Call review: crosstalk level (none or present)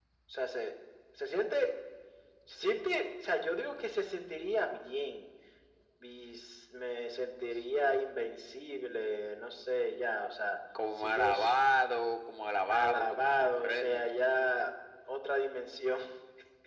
present